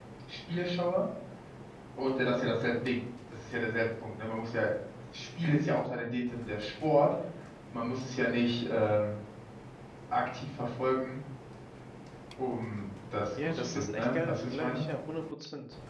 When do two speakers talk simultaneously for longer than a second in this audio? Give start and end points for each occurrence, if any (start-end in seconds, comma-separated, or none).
13.4-14.8